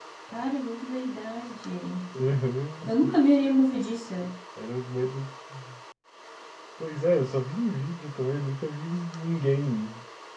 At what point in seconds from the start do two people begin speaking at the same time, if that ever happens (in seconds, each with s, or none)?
none